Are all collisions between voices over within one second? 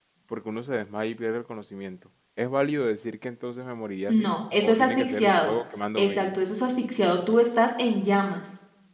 No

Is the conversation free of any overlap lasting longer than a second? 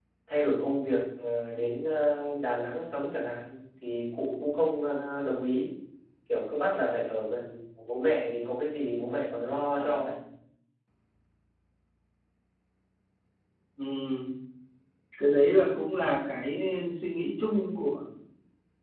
Yes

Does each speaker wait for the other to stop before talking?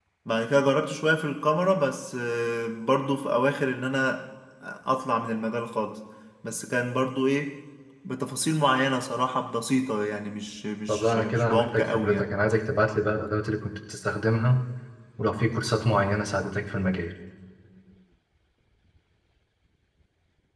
No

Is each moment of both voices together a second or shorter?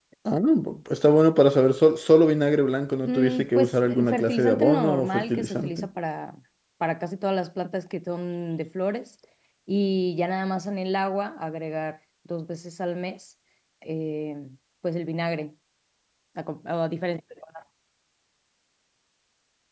No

